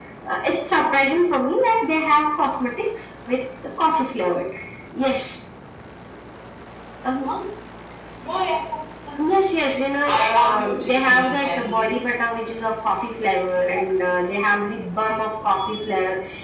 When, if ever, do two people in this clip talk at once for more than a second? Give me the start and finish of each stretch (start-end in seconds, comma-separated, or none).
10.1-11.9